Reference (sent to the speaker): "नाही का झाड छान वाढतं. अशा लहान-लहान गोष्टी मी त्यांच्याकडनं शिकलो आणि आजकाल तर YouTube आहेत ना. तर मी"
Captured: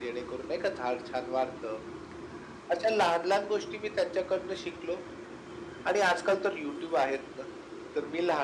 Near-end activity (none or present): none